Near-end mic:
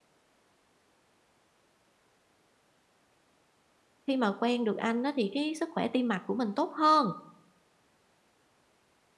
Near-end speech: present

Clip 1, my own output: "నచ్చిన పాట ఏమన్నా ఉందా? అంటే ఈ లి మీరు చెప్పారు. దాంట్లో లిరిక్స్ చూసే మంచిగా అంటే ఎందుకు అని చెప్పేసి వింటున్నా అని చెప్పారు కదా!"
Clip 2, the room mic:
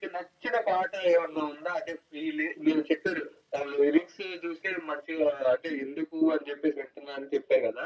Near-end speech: none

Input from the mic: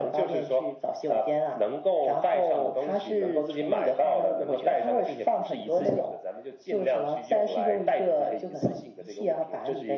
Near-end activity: none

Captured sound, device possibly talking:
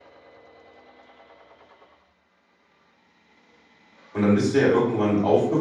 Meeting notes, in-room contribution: present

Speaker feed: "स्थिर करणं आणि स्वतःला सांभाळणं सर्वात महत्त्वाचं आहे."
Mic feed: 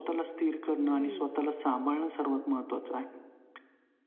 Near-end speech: present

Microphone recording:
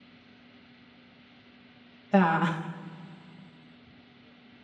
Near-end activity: present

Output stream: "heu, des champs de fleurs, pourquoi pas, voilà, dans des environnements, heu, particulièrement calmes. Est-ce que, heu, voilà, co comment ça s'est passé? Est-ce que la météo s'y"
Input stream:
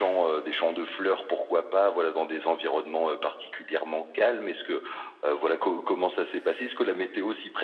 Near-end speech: none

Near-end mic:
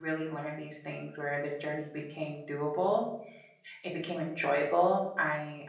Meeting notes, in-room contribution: present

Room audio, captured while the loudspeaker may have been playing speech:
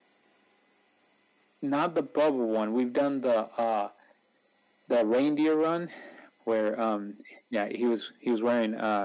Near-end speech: none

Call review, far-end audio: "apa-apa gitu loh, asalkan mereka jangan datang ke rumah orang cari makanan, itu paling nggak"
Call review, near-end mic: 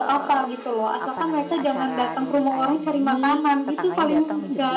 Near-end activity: present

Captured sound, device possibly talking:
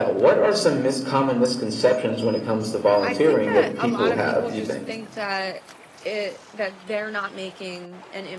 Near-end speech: present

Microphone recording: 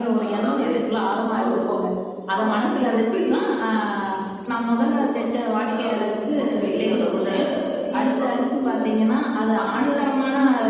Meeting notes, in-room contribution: none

